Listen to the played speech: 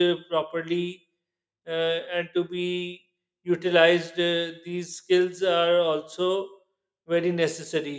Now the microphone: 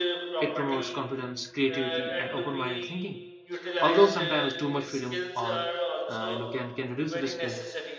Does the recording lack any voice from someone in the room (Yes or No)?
No